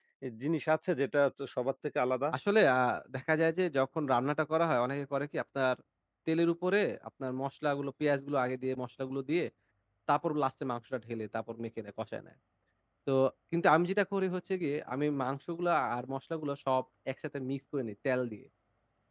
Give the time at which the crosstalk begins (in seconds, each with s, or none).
none